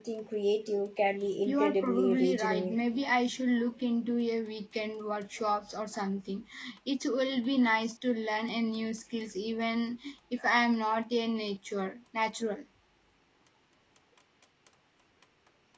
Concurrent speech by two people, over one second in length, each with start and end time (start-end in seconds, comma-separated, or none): 1.4-2.8